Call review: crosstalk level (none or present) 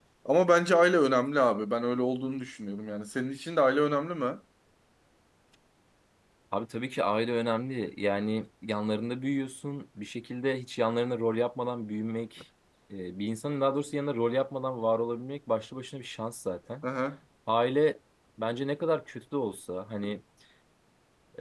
none